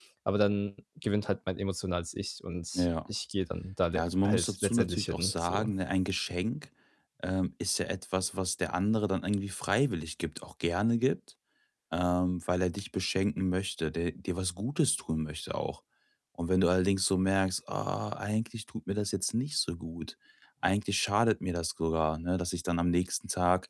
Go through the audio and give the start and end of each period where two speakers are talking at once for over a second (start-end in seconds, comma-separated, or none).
4.0-5.7